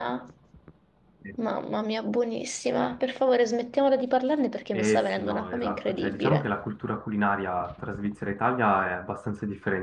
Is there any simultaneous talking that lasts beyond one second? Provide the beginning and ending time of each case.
4.7-6.5

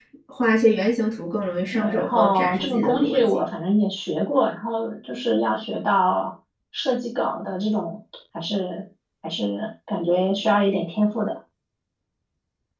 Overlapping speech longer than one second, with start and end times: 1.7-3.4

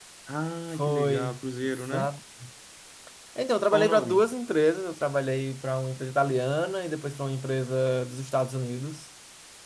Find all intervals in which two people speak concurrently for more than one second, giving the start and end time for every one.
0.7-2.1

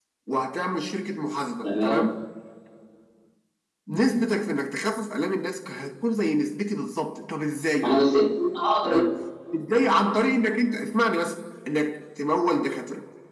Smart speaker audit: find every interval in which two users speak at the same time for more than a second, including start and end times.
none

